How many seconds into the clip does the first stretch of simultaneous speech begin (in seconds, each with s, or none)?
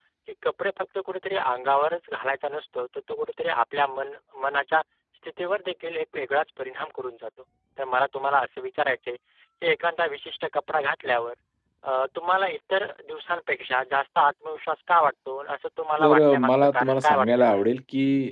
16.0 s